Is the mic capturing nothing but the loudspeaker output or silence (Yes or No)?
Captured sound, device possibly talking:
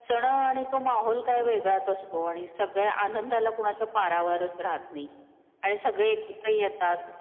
No